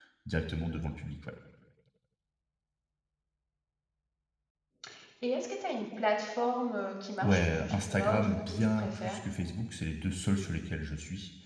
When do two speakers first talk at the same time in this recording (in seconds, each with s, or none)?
7.2 s